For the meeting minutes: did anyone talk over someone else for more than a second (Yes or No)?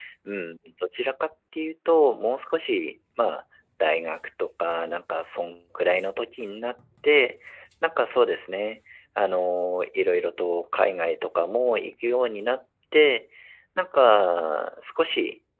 No